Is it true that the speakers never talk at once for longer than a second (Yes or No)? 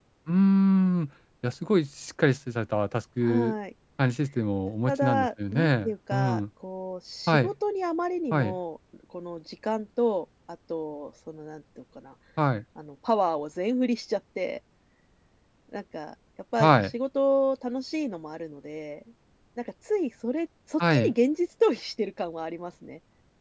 No